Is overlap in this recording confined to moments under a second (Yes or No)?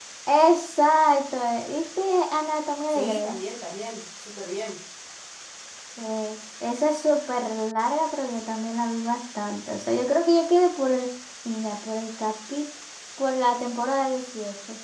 Yes